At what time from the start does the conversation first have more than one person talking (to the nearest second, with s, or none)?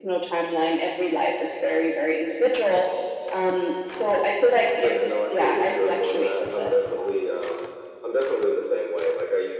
5 s